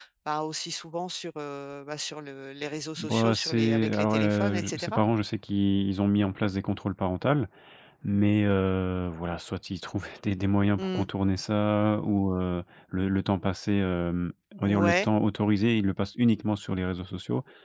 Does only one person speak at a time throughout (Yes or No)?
No